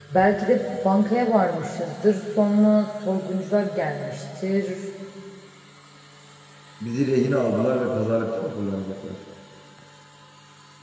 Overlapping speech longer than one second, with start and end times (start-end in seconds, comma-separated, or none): none